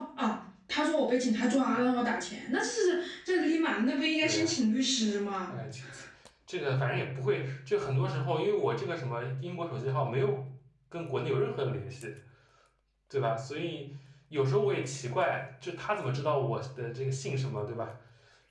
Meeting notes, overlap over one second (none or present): none